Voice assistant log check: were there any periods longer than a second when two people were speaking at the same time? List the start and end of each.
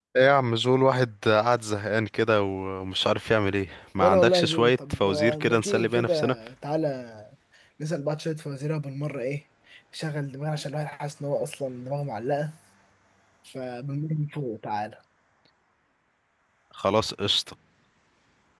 4.0-6.1

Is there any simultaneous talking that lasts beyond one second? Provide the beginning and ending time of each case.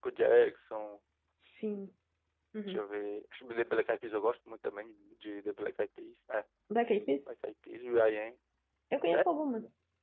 none

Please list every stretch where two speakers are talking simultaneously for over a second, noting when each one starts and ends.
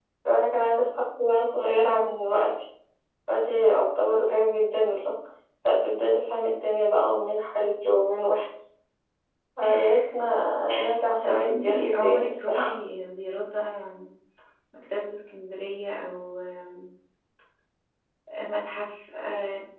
11.2-12.7

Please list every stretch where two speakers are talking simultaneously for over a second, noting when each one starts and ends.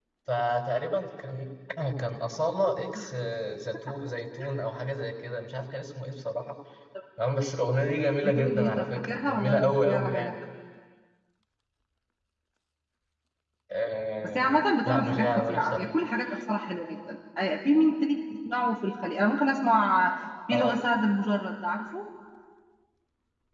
8.2-10.4, 14.2-15.9

